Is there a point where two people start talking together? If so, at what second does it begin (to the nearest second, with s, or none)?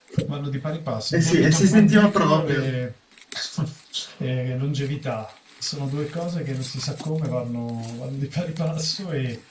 1 s